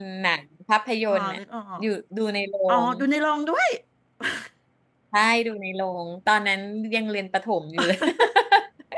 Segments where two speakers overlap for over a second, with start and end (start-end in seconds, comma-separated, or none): none